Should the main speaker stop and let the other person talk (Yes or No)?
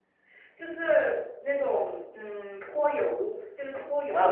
Yes